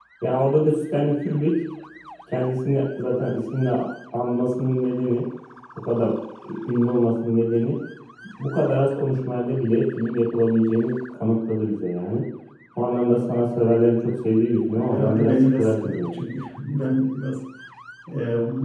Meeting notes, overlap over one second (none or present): present